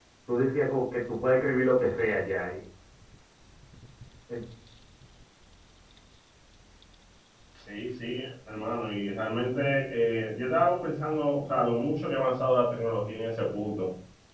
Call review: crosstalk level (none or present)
none